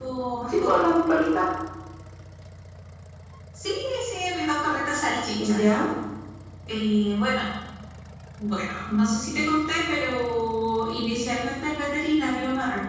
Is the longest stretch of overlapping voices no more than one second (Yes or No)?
Yes